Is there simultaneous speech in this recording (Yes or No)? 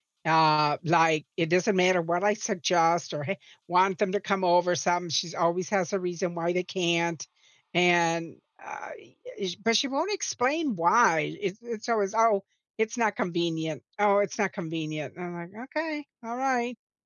No